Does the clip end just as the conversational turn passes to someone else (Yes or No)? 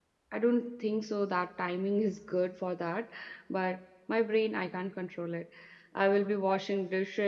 No